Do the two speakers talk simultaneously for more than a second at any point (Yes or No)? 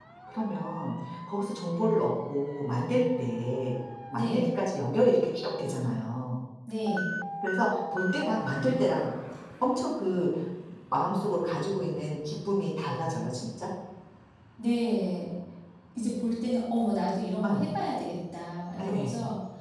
No